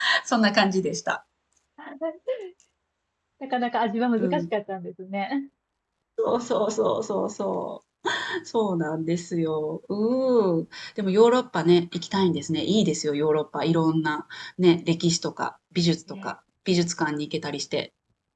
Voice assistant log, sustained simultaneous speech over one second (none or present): none